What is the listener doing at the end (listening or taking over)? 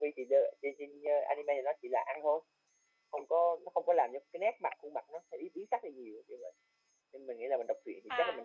taking over